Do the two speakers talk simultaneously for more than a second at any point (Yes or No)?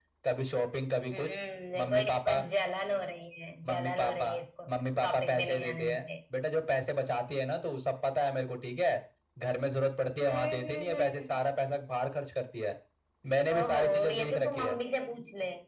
Yes